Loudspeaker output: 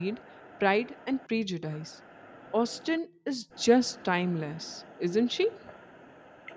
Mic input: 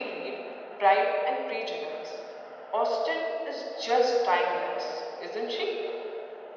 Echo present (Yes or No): Yes